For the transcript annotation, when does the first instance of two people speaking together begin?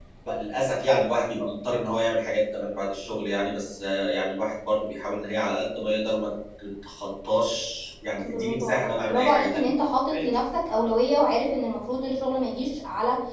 8.2 s

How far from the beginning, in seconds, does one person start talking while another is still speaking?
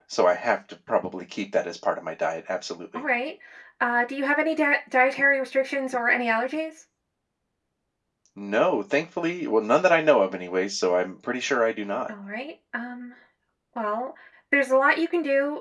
none

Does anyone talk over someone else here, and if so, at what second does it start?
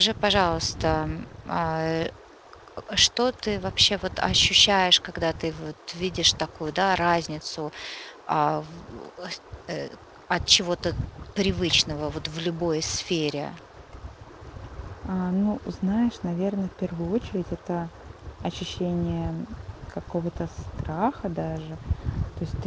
none

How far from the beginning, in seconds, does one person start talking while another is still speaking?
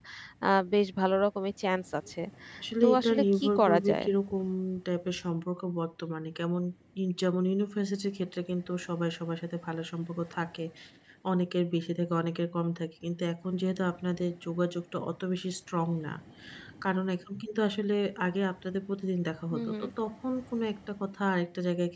2.8 s

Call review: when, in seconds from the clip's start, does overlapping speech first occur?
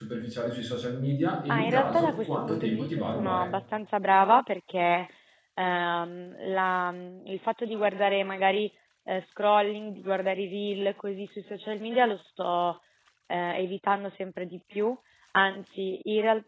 1.5 s

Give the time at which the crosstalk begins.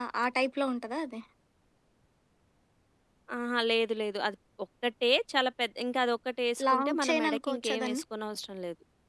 6.6 s

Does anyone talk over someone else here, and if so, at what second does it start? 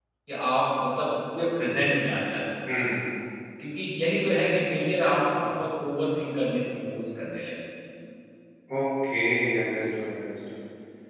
none

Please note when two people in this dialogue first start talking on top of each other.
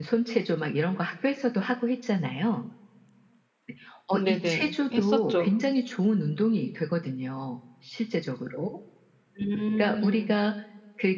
4.1 s

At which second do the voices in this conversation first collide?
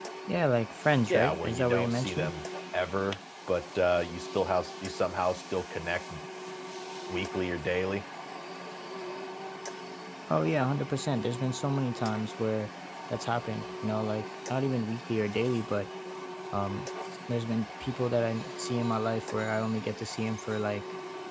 1.1 s

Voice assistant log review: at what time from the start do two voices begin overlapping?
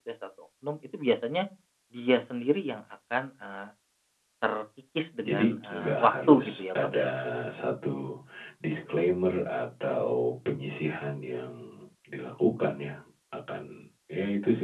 5.2 s

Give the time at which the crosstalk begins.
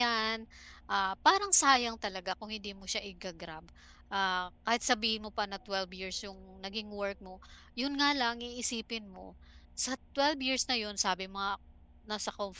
none

